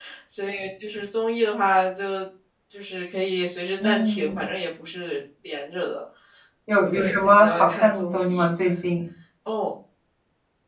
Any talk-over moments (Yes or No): Yes